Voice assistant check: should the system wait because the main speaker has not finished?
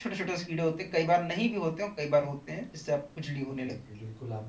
No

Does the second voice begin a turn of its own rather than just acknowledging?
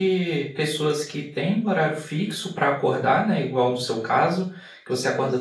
No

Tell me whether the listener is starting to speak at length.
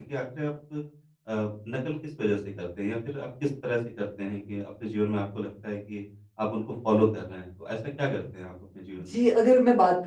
Yes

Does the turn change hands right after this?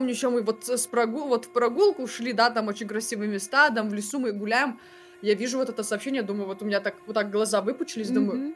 Yes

